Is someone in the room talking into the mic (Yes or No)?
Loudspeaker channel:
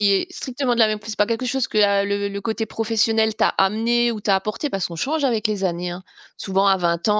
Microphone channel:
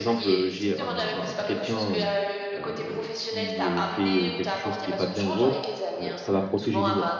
Yes